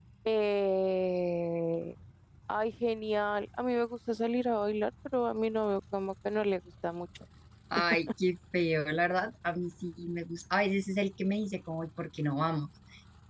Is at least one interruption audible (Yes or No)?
No